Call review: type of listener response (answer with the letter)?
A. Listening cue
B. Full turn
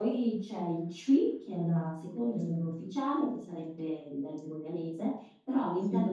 A